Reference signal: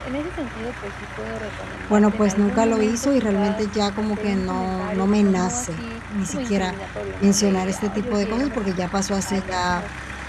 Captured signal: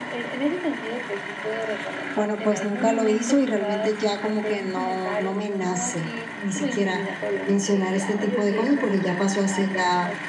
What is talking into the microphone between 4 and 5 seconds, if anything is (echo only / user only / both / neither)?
echo only